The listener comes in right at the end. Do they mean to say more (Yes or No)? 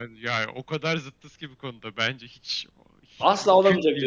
Yes